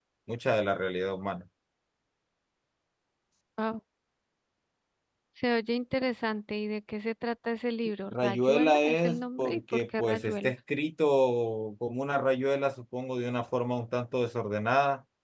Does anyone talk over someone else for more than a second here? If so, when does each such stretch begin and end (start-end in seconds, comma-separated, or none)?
8.1-10.5